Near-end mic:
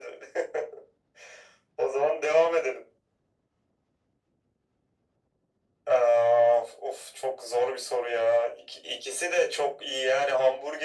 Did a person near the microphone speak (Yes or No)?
No